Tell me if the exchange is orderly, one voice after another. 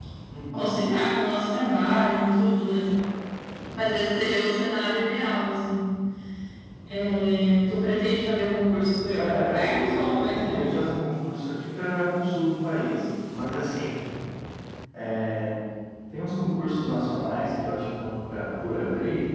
No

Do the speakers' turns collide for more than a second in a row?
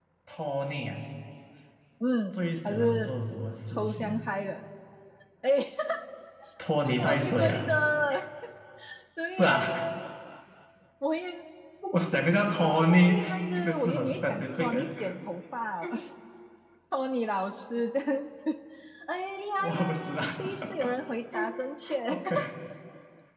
Yes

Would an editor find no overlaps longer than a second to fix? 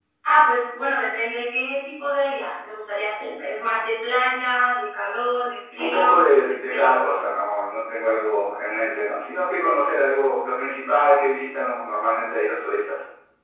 No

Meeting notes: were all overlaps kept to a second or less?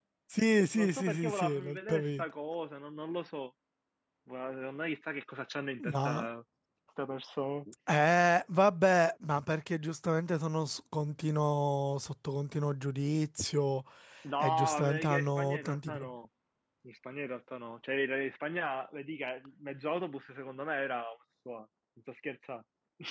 No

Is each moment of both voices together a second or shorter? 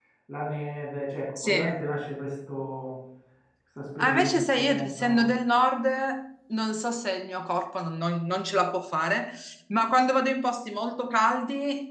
No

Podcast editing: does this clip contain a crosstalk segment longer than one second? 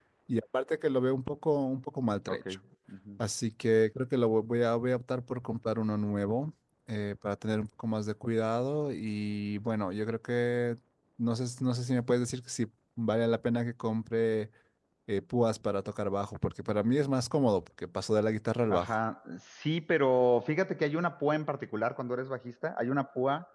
No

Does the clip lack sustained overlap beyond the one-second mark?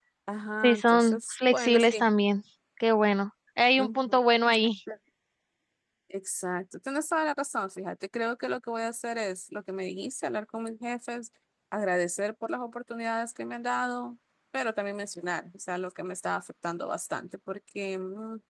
No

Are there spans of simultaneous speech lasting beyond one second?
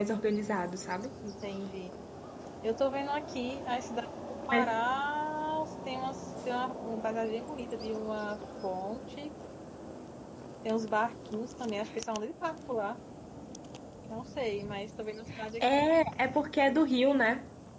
No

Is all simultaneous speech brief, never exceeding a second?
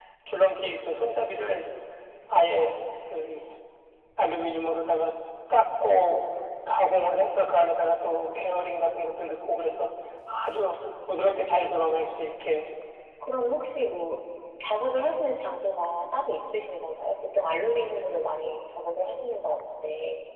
Yes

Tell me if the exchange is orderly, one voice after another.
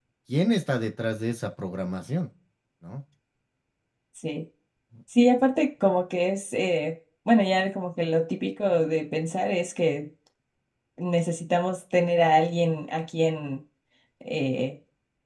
Yes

